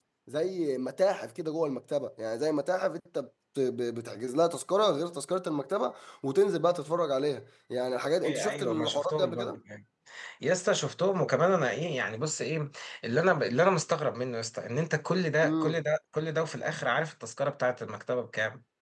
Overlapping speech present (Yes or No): Yes